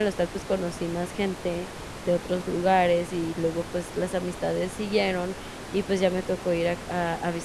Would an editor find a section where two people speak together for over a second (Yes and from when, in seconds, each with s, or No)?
No